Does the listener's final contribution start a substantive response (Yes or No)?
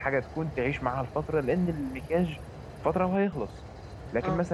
No